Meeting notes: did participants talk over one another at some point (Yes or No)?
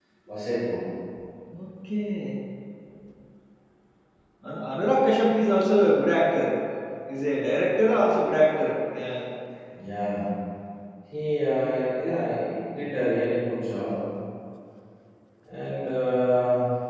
No